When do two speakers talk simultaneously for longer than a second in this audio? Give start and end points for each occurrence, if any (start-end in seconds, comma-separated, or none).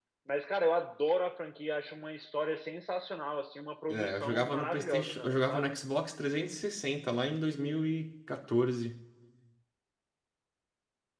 3.9-5.7